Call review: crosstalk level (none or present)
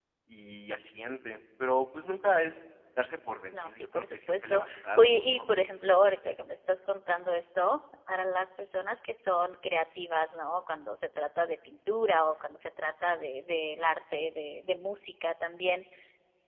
present